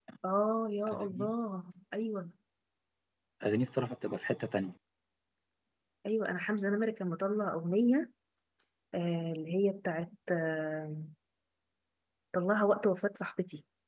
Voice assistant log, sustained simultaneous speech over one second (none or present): none